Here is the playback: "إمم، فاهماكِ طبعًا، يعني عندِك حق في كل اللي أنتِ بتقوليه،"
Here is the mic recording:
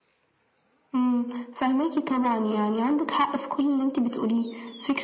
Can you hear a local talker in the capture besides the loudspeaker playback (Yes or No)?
No